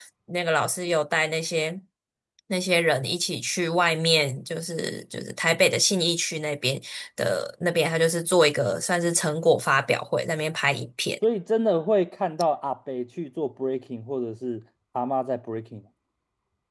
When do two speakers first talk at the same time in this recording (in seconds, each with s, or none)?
none